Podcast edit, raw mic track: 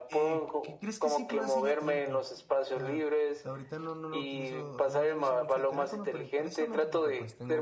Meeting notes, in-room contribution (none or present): present